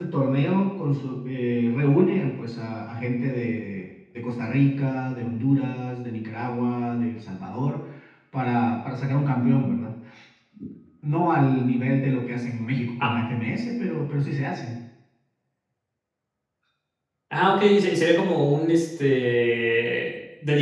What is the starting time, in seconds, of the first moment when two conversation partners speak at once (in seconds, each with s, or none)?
none